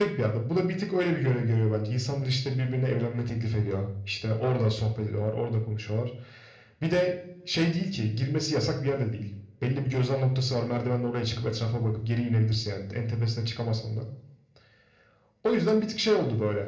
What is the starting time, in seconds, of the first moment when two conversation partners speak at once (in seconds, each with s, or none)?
none